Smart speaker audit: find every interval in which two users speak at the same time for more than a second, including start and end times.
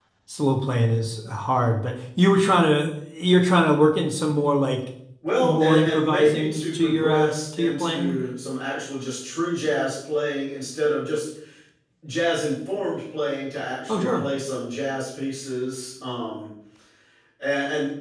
5.4-8.1

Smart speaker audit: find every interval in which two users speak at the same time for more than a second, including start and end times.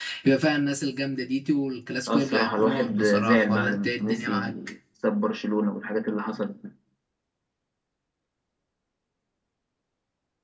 2.1-4.5

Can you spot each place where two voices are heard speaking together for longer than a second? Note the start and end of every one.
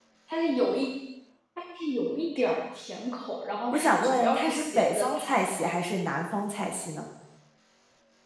3.7-5.3

